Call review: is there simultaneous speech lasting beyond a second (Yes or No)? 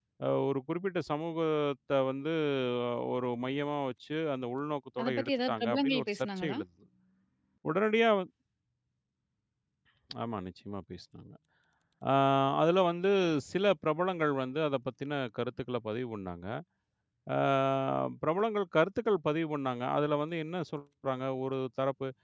Yes